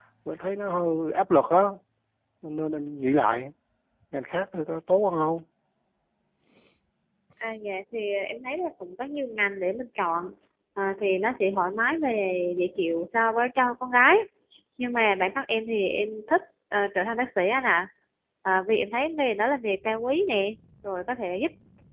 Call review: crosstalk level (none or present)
none